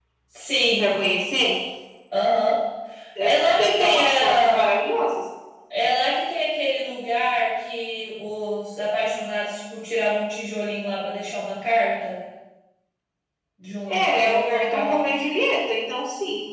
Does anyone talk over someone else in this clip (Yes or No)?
Yes